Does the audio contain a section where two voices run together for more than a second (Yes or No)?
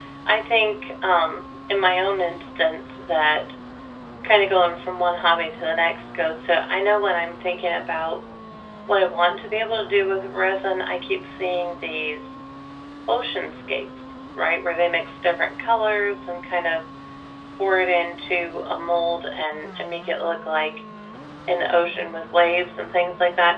No